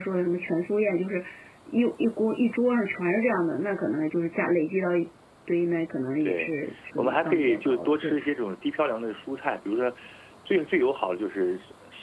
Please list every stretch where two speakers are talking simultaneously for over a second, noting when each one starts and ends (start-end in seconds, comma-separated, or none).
7.0-8.2